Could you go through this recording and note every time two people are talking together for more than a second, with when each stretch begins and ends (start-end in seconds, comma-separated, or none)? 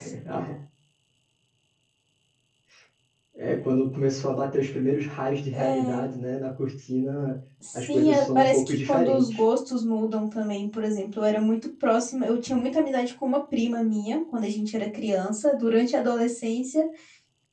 7.7-9.4